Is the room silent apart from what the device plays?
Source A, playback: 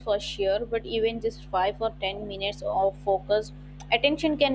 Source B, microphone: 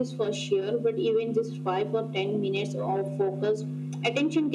Yes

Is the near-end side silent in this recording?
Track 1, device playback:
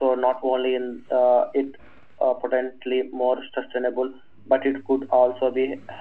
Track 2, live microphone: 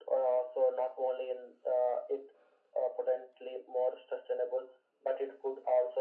Yes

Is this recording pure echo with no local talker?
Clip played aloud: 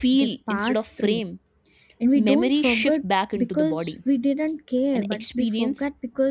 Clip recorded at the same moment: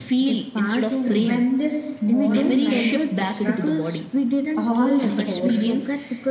No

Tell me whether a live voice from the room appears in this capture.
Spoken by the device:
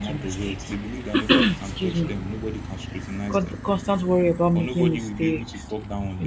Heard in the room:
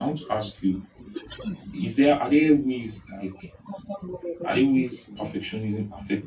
Yes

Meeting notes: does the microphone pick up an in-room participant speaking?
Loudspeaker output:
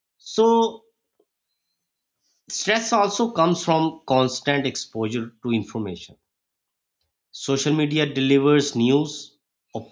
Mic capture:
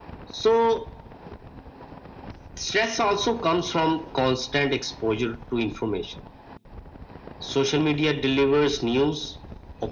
No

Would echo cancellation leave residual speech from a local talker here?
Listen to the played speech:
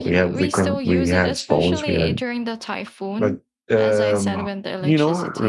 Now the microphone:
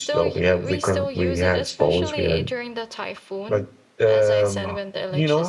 No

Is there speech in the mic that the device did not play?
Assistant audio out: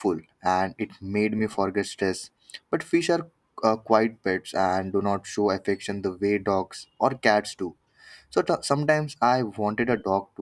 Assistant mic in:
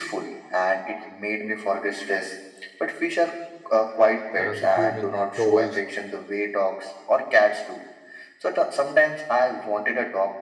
Yes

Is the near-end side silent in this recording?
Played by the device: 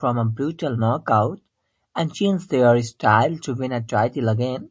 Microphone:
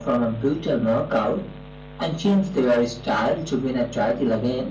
Yes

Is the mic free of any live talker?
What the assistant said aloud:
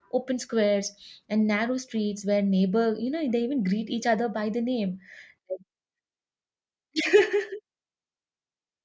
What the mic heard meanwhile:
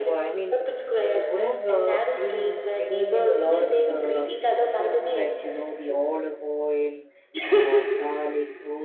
No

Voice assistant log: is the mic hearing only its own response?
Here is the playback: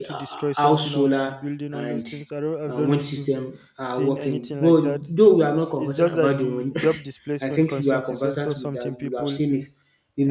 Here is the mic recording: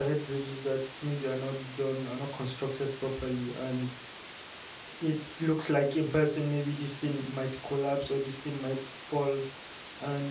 No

